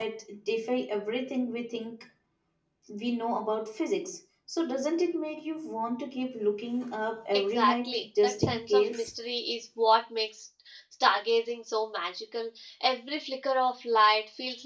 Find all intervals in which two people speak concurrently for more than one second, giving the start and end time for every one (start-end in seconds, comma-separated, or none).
7.3-9.1